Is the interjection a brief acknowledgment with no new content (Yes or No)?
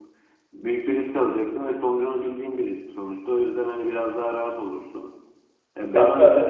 No